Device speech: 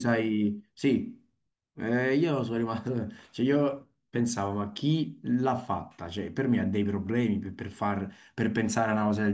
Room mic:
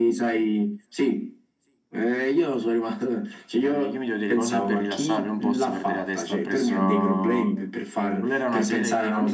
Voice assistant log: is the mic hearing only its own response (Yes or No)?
No